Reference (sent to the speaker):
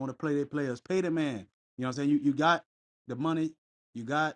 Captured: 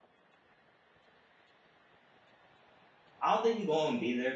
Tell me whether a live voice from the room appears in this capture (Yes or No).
Yes